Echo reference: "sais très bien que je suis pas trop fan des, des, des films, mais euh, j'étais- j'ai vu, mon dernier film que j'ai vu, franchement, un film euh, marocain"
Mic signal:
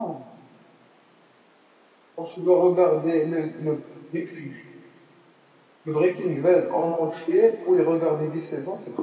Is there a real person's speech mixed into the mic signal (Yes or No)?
Yes